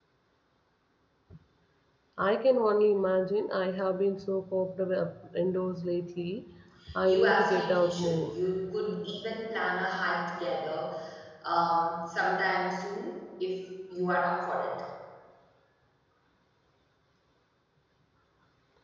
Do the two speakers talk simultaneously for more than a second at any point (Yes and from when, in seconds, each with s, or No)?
Yes, from 7.0 s